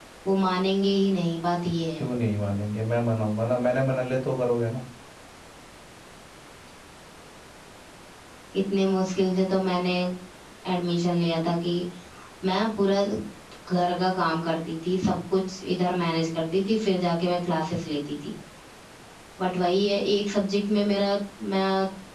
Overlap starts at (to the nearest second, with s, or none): none